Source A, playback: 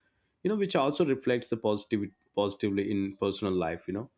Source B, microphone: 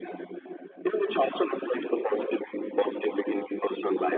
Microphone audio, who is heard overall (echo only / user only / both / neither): echo only